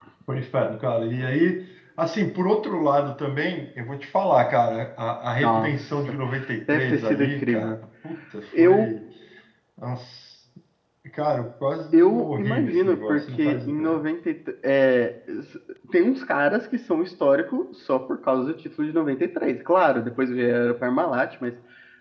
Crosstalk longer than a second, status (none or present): present